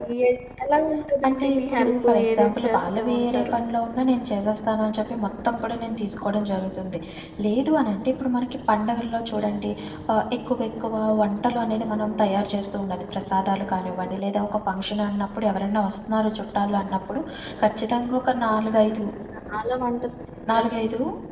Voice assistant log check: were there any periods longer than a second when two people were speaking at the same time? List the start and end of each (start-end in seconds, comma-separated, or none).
1.3-3.6